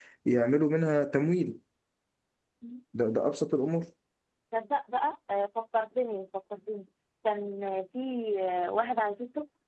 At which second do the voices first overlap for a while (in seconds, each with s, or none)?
none